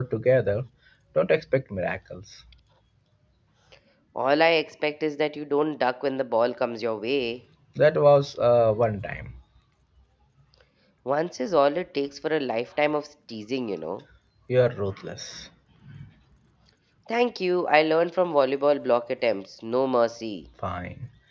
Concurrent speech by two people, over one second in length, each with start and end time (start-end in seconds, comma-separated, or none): none